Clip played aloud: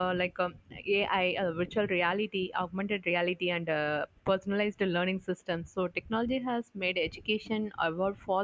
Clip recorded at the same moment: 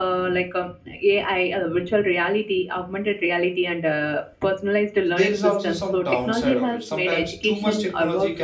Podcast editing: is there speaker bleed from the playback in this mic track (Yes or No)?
Yes